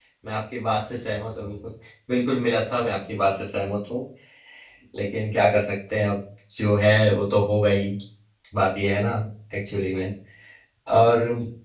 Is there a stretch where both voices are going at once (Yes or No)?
No